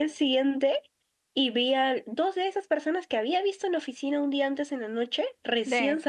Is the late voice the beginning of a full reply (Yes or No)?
No